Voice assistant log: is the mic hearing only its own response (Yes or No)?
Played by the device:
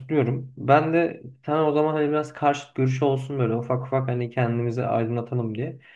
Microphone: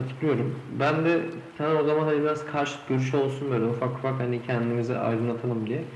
Yes